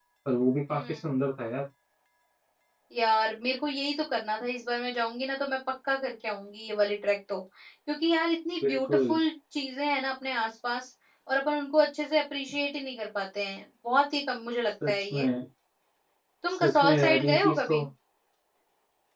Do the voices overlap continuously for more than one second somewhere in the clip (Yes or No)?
Yes